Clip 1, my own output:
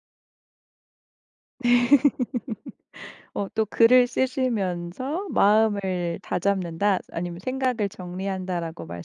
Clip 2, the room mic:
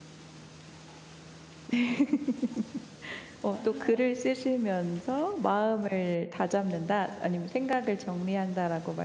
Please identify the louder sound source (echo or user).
echo